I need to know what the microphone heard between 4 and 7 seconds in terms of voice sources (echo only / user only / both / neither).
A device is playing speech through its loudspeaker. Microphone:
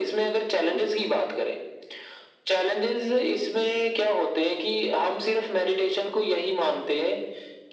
echo only